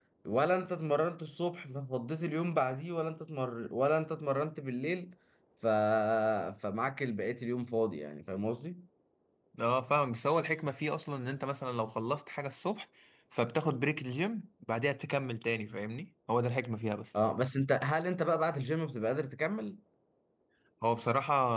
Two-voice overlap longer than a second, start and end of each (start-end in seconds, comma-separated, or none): none